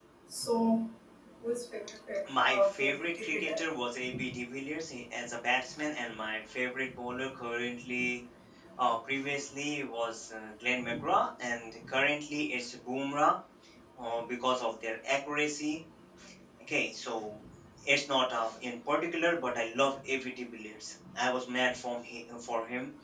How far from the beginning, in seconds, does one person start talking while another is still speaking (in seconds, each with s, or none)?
2.2 s